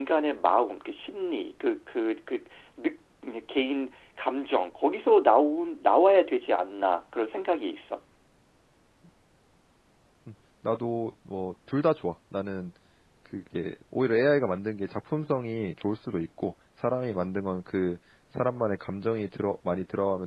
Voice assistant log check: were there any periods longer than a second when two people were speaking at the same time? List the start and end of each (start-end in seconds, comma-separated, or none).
none